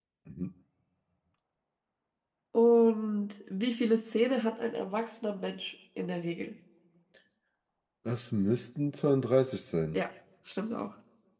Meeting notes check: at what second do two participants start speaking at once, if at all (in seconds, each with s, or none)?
none